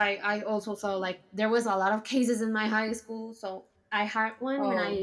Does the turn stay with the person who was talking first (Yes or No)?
Yes